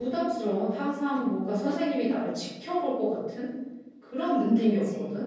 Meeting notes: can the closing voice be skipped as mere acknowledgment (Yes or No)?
No